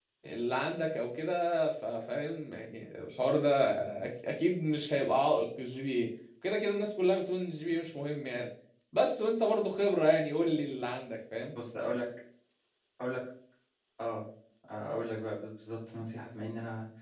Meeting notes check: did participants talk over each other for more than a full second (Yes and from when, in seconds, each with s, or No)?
No